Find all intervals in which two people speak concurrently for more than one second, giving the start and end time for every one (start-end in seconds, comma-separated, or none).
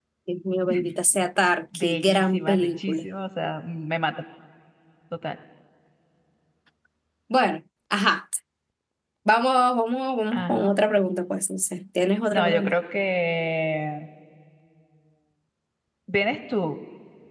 1.7-3.0